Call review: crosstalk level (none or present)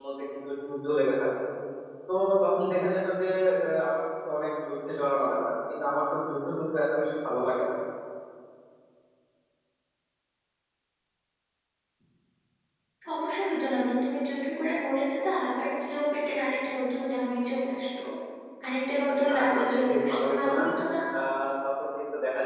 present